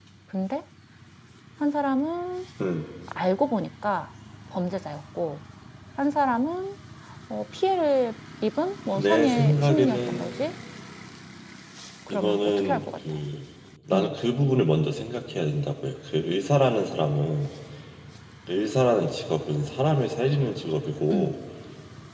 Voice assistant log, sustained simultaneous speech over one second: present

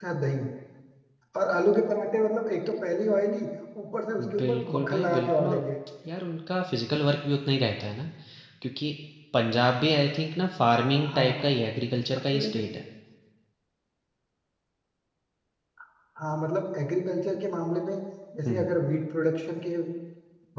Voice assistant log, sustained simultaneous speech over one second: present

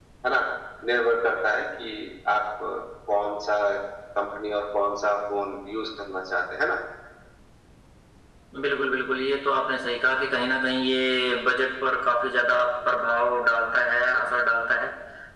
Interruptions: none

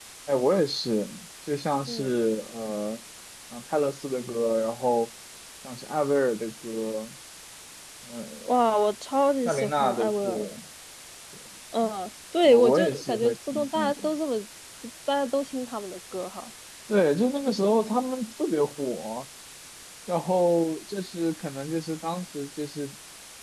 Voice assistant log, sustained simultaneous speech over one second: present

